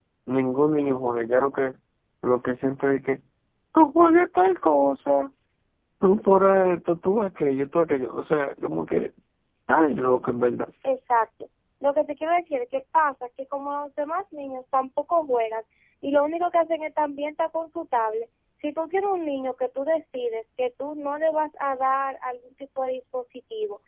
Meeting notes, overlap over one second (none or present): none